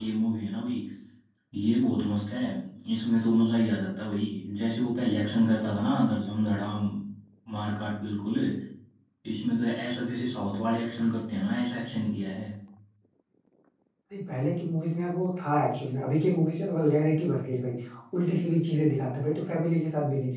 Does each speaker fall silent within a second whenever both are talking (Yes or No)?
Yes